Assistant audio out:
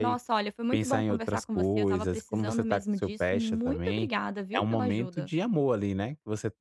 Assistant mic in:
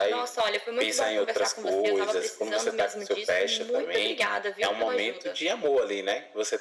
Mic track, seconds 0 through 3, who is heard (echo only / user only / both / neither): echo only